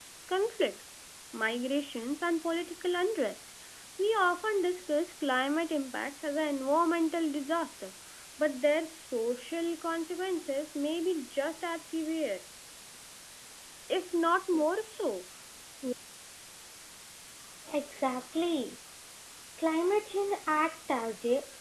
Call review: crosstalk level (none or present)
none